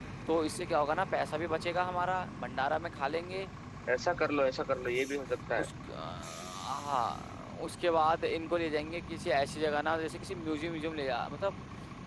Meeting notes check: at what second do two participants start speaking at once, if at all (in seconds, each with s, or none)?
none